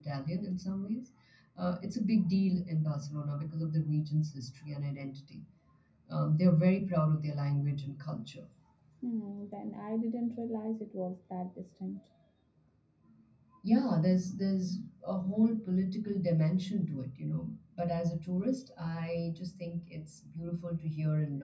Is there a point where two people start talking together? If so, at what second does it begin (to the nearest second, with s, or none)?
none